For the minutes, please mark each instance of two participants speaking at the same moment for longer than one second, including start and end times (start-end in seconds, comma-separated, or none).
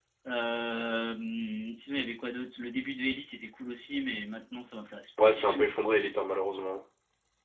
none